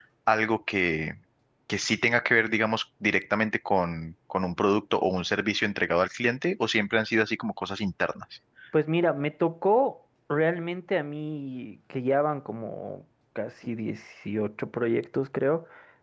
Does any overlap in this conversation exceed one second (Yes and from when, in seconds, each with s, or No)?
No